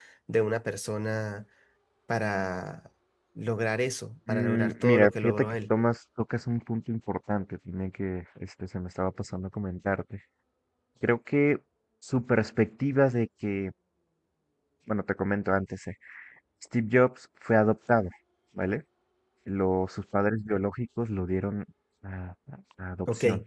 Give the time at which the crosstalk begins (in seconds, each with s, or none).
4.3 s